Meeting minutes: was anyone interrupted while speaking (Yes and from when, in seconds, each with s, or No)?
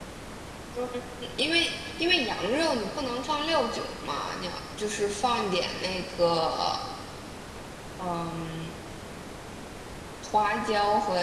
No